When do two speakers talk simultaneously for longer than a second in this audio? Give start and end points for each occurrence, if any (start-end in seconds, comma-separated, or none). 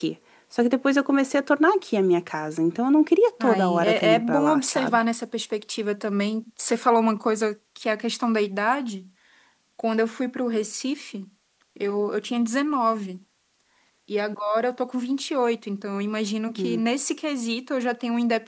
3.4-5.0